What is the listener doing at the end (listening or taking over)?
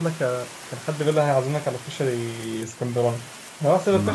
listening